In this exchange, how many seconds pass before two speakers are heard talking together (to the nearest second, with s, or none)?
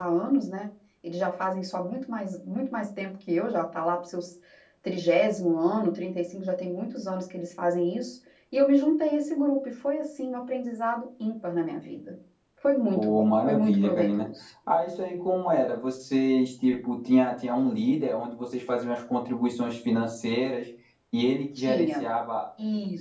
13 s